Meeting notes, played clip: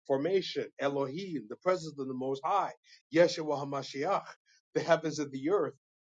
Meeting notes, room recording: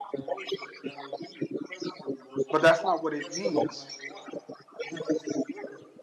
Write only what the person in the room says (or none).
But that's not what it means.